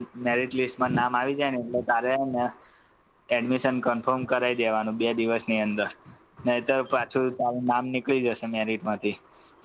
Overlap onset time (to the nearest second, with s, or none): none